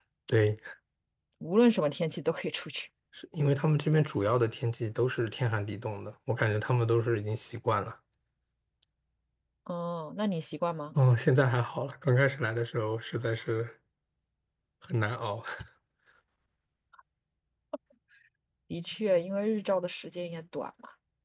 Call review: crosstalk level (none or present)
none